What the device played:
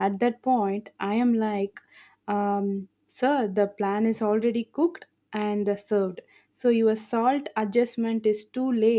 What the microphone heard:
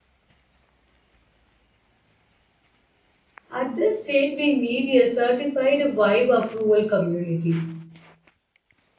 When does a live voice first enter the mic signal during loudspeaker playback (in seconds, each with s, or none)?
3.5 s